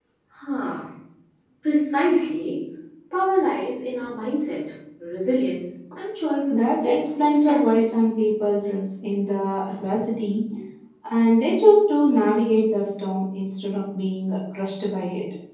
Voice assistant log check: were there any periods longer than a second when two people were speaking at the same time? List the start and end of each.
6.5-8.1

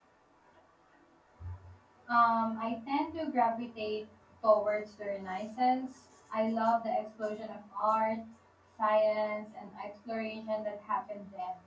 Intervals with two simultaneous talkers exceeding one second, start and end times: none

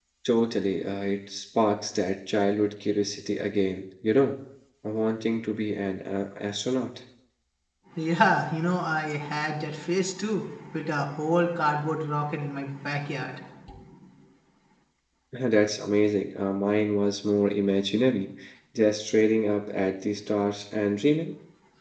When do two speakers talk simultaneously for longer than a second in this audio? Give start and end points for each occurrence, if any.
none

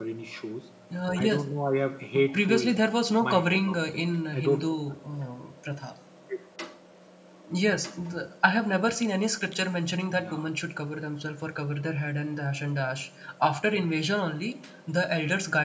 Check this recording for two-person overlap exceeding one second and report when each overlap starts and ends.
3.2-4.7

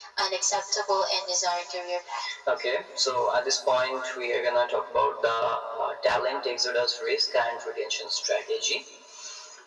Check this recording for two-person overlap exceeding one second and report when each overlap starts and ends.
none

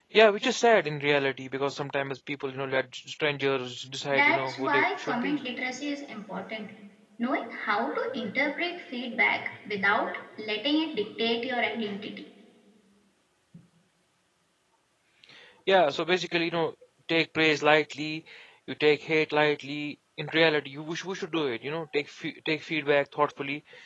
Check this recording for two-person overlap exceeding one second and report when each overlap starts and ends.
4.1-5.4

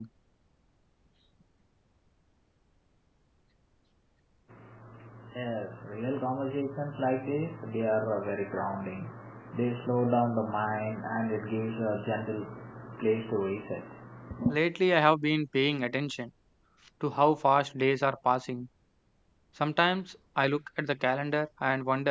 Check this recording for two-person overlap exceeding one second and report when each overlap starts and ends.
none

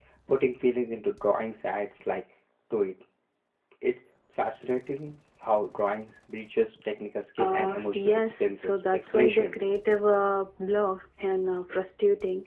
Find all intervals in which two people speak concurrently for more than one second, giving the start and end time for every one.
7.4-9.6

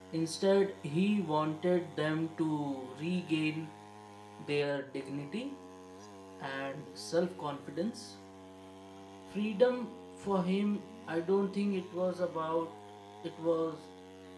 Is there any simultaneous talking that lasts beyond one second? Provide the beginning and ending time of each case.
none

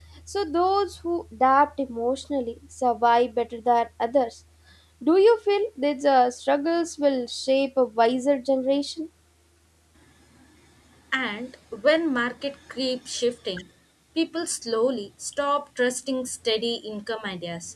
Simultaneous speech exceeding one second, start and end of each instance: none

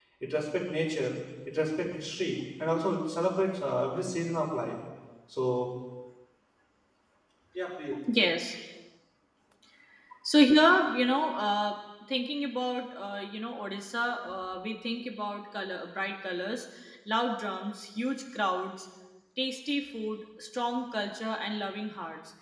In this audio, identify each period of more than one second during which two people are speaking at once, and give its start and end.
none

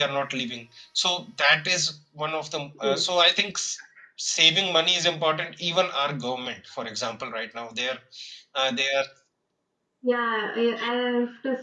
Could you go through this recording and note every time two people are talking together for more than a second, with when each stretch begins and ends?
none

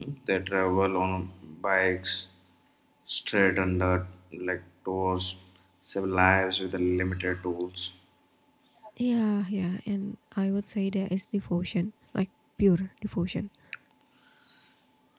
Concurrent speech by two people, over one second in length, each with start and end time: none

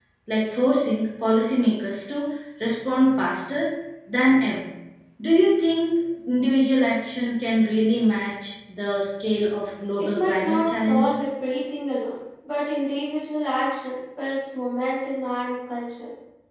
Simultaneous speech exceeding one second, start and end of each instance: 10.0-11.2

